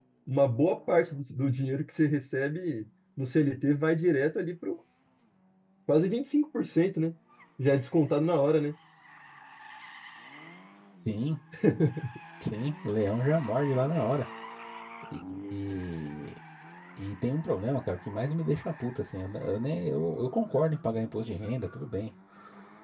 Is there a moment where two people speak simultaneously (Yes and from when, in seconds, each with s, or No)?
No